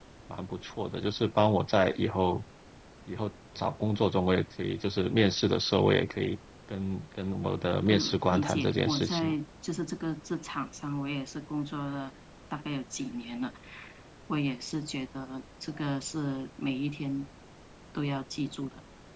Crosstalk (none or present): present